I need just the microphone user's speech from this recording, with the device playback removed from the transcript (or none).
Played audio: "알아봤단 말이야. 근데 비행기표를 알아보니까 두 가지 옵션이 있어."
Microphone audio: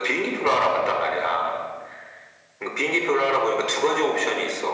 none